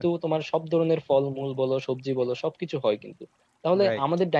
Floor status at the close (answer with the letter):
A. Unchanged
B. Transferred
A